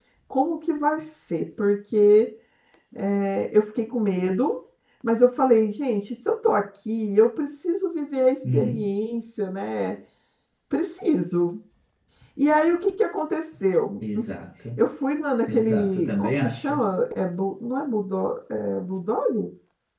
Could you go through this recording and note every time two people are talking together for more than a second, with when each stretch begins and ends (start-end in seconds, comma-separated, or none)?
15.5-16.7